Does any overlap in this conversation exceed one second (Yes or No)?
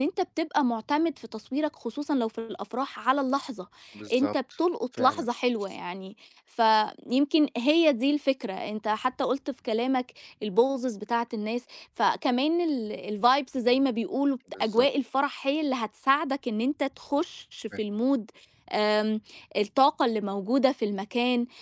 No